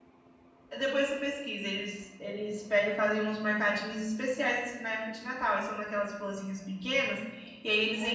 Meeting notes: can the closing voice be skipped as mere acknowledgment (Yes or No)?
Yes